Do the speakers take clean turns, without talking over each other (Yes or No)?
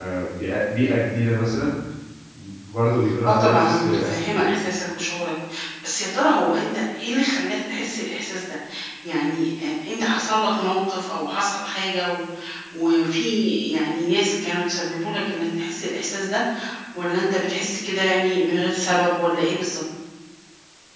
No